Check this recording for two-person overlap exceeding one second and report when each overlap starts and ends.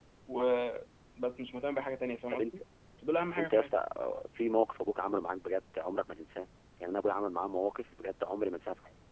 none

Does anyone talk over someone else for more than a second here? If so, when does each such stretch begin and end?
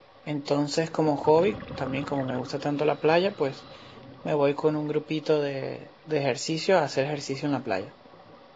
none

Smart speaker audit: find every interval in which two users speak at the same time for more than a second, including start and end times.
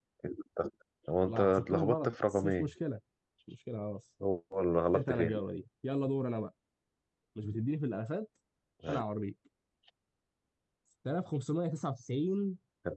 1.2-2.7

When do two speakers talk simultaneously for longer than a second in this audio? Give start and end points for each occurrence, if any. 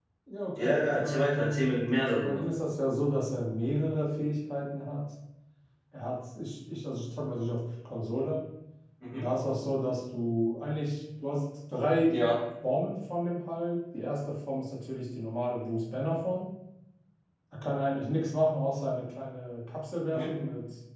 0.6-2.4

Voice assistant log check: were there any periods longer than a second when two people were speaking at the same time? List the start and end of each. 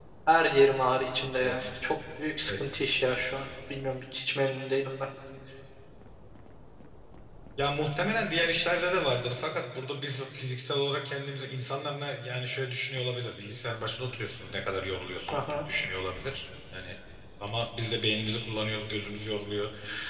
none

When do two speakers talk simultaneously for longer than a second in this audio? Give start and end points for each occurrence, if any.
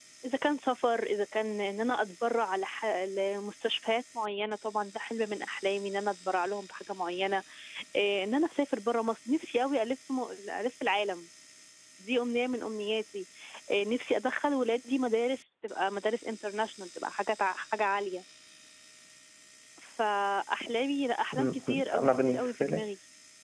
21.3-22.8

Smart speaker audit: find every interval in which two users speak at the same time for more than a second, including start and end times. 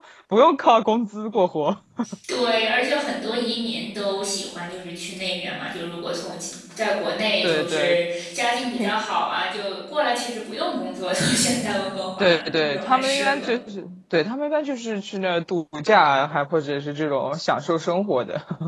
12.2-13.5

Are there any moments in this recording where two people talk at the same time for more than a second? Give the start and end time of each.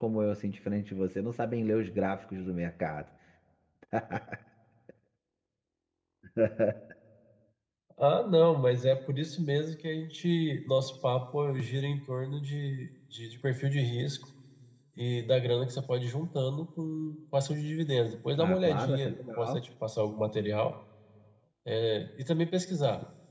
18.4-19.6

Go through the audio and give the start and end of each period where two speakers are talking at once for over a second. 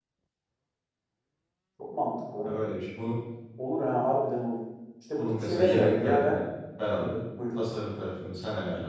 5.2-6.4

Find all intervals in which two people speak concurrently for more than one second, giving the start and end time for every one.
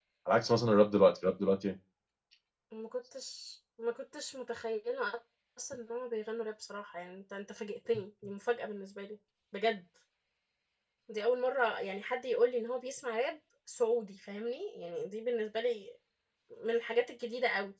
none

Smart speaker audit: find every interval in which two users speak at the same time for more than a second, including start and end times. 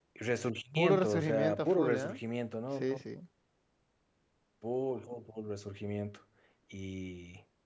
0.7-2.1

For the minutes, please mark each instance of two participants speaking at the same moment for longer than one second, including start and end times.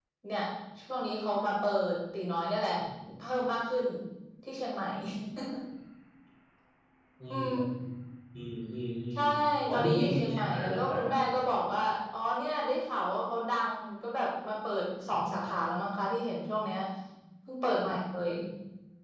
9.7-11.1

